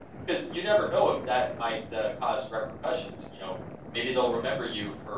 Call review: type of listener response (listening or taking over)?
listening